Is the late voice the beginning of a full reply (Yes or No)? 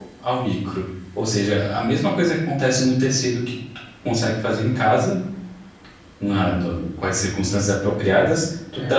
No